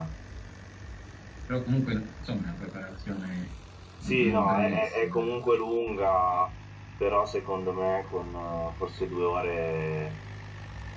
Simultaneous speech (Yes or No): Yes